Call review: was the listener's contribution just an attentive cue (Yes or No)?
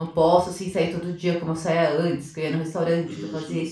No